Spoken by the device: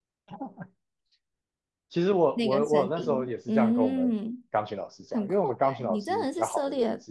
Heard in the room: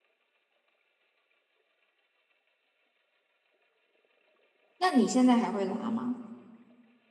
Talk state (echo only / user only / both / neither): user only